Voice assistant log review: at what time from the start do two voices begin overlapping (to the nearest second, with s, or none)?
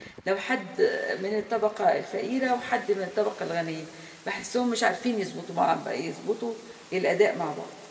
none